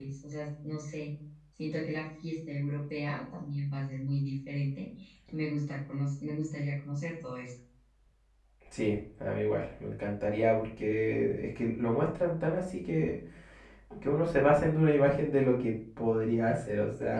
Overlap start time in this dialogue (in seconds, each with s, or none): none